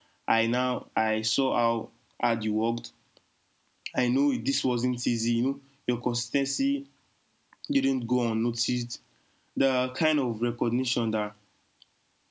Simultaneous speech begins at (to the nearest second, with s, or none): none